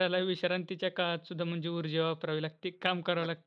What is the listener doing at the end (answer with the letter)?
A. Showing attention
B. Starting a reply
B